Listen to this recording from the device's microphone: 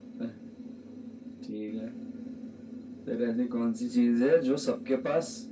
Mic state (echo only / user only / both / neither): echo only